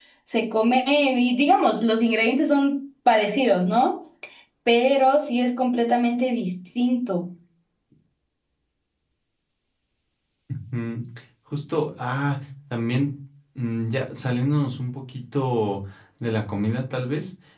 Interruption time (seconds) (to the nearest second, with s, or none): none